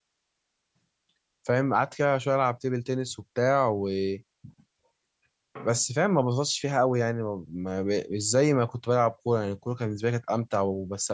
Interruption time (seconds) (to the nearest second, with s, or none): none